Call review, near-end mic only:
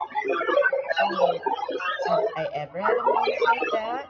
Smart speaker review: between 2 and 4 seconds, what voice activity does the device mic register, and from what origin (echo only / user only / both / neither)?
both